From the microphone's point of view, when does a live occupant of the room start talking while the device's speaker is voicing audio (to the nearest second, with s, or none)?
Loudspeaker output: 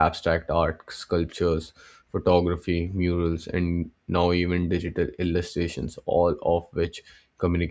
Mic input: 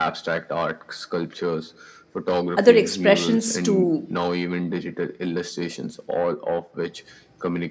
3 s